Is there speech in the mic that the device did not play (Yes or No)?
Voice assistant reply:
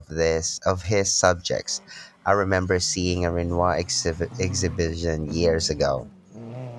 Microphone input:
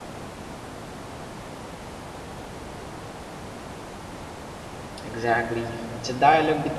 Yes